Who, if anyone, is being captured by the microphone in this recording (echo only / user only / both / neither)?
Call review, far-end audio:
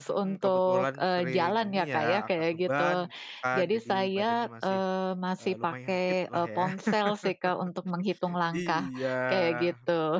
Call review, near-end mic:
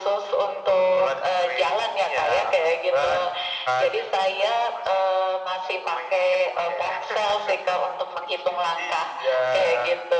echo only